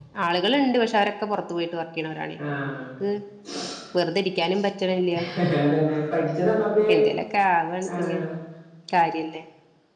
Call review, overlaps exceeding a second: none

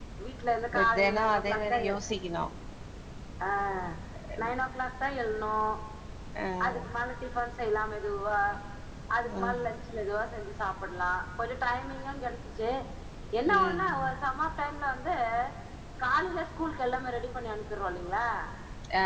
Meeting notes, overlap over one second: present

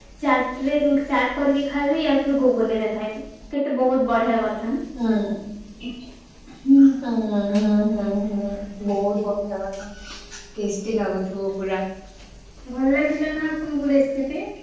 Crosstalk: none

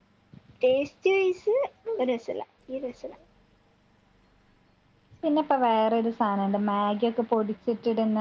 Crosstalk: none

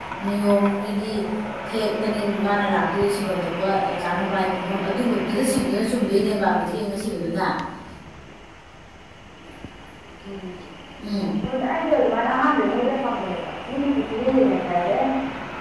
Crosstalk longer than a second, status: none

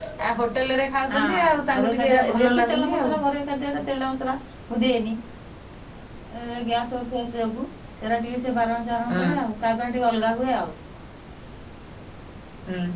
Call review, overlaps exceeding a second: present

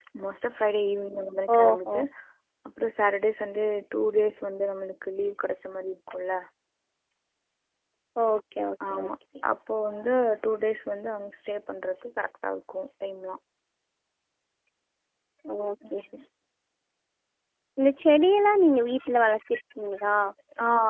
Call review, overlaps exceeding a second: none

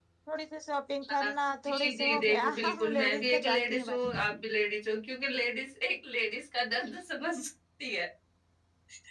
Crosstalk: present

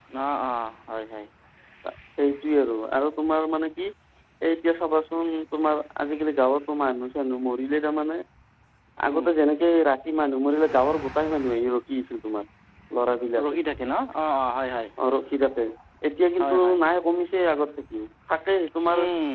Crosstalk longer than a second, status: none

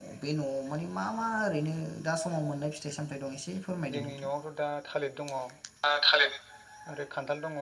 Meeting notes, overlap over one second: none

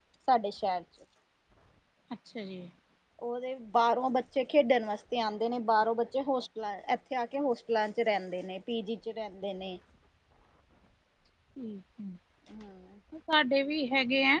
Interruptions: none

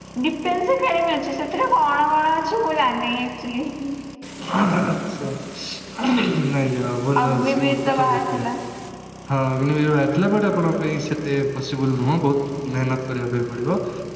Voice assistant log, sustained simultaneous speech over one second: present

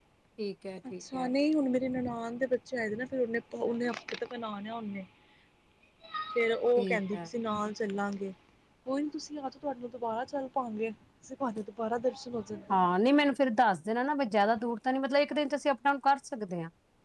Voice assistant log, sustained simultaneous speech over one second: none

